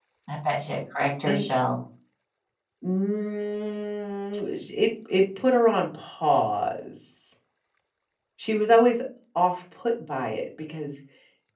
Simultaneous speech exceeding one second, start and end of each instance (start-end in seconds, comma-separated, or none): none